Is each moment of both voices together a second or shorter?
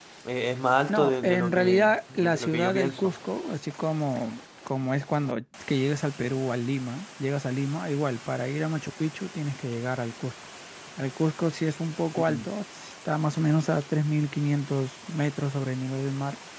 No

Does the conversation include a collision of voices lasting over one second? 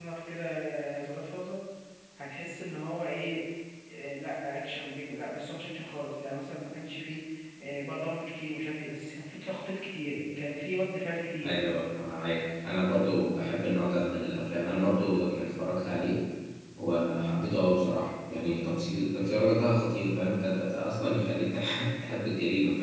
No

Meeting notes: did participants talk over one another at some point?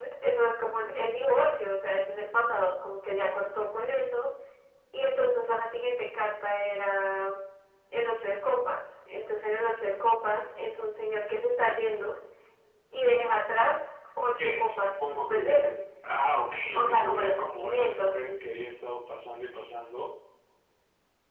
Yes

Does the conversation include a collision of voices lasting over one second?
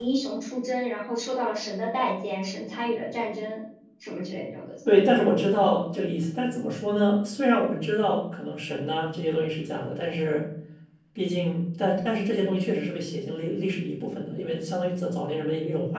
No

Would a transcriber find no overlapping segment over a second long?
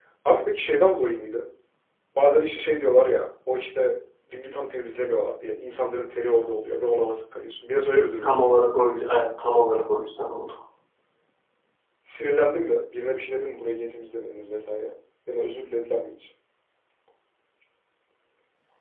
Yes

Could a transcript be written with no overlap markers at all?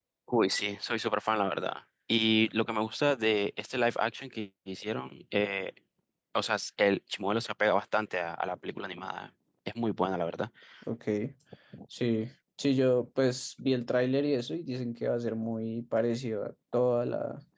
Yes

